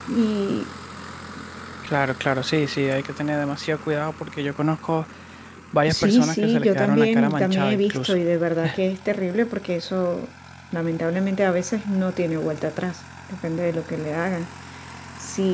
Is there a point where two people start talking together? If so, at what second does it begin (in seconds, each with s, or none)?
5.9 s